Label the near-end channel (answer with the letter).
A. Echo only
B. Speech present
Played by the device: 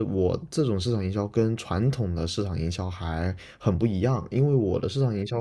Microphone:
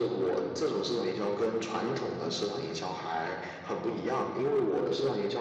A